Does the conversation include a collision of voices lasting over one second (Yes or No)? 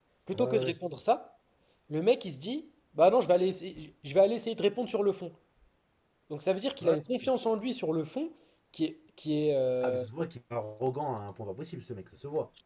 No